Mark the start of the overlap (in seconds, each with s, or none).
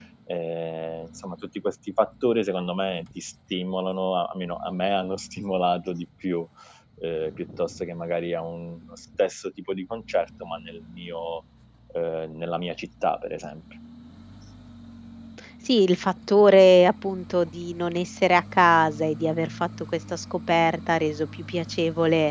none